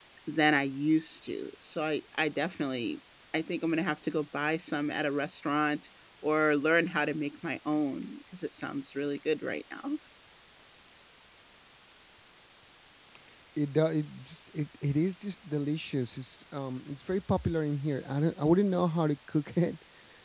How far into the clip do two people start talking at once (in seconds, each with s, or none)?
none